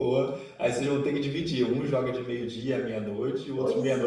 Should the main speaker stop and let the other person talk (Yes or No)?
Yes